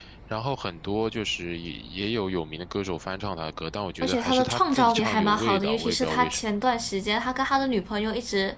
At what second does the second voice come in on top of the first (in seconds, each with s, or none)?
4.0 s